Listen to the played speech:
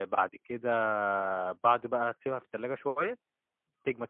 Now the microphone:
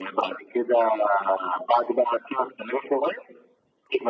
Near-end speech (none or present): none